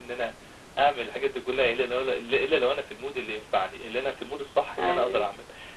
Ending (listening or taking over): listening